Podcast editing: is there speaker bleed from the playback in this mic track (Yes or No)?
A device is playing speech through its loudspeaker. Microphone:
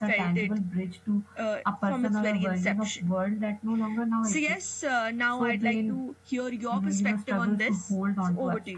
Yes